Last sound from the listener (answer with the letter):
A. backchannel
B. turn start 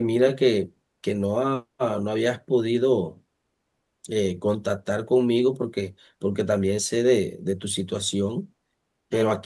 A